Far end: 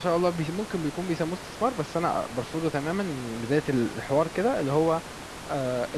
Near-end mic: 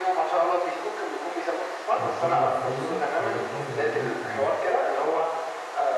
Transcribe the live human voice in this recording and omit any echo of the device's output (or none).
بتكبر فلوسك او بتحافظ على قيمة فلوسك